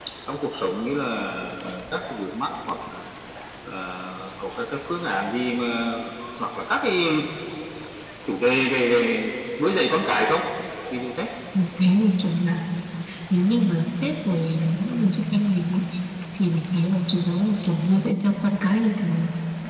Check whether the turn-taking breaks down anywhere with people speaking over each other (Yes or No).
No